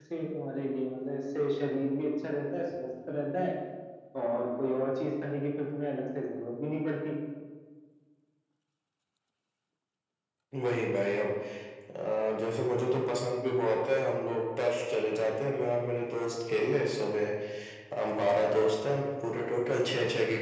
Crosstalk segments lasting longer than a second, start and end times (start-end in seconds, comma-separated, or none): none